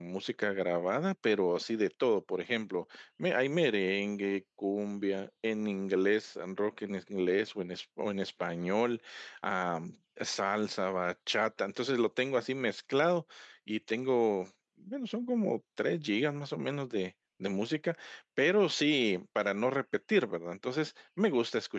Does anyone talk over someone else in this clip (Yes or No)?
No